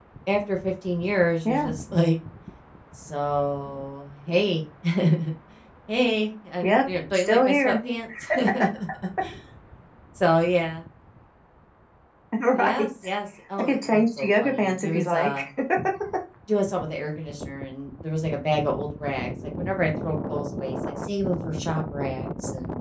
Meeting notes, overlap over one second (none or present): present